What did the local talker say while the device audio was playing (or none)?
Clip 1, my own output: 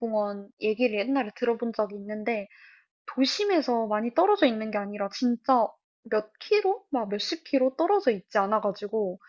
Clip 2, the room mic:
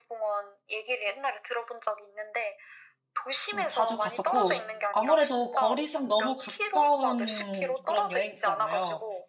좀 자주 갔었고 아무래도 거리상 너무 가까운 그런 여행지잖아요.